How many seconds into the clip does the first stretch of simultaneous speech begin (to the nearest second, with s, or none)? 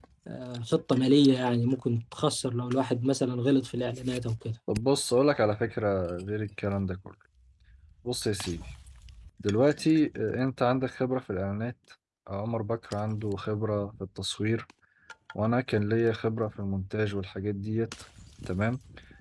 none